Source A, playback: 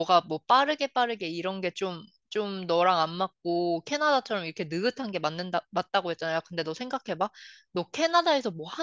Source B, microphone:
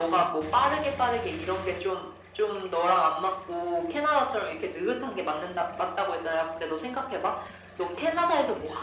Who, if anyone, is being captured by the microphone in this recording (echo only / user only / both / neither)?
echo only